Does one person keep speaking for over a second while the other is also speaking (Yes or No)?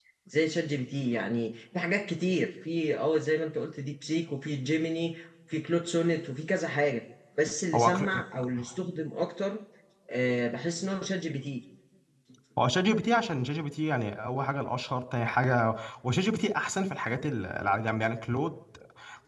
No